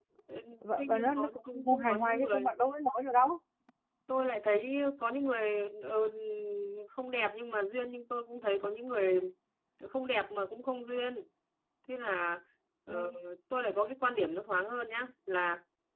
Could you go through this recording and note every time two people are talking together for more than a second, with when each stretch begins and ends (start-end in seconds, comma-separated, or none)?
0.8-2.5